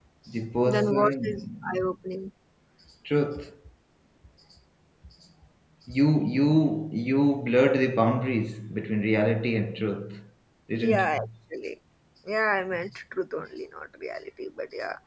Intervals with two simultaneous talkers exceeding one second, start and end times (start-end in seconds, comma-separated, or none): 0.7-1.9